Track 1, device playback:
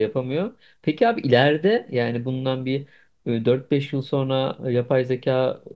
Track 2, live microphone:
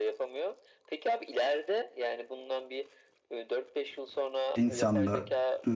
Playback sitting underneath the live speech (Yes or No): Yes